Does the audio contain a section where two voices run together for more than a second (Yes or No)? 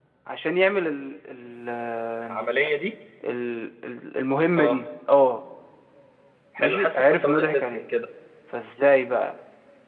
Yes